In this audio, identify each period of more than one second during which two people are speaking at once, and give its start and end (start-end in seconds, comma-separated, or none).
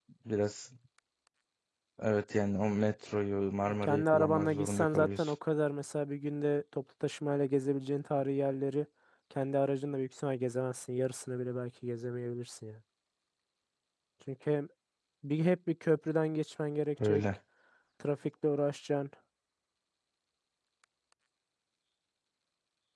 3.7-5.3